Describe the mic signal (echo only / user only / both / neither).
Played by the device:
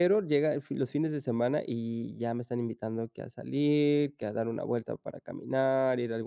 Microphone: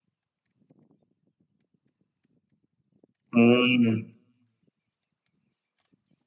user only